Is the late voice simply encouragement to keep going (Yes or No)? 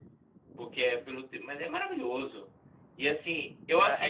No